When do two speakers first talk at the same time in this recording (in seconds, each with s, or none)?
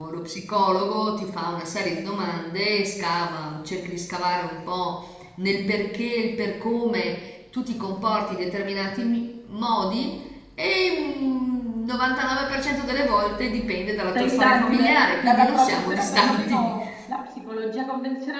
14.2 s